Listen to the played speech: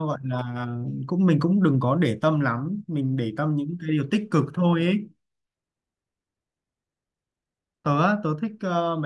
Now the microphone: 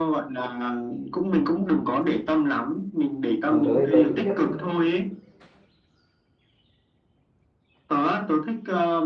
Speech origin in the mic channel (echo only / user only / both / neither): both